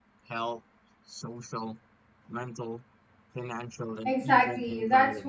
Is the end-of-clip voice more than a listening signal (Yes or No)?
Yes